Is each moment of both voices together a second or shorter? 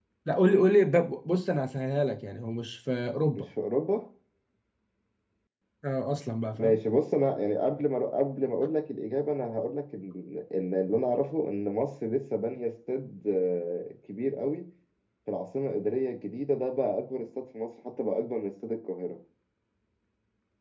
Yes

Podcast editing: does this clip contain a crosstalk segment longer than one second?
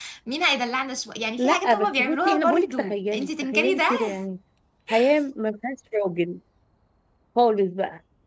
Yes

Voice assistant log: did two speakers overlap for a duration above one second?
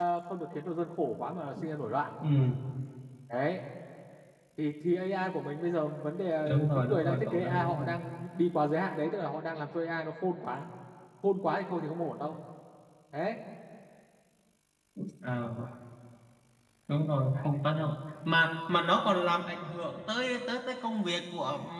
Yes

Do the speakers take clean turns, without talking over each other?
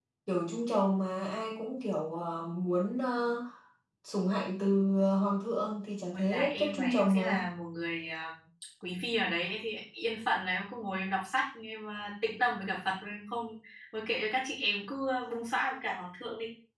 No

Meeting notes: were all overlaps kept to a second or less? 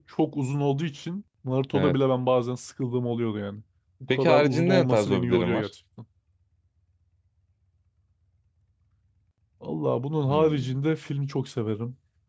No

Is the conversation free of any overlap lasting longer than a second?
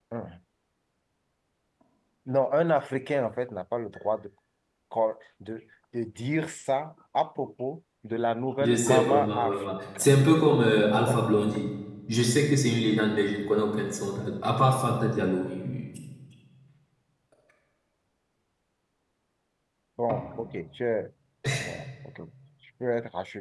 No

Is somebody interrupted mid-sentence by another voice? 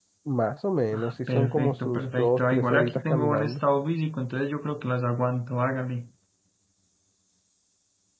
Yes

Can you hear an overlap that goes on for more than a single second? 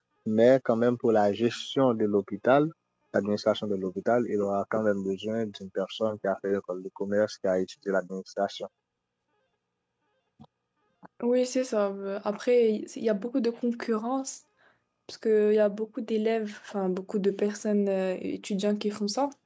No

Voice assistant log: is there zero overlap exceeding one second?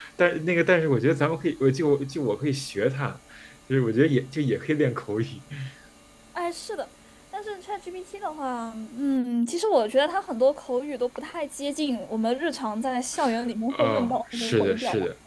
No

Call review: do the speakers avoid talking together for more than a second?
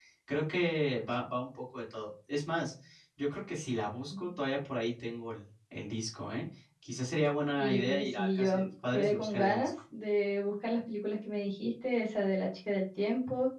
No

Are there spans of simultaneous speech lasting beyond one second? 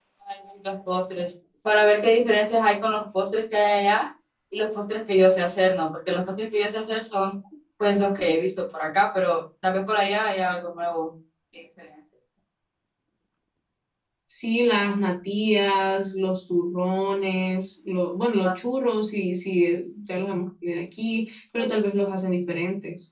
No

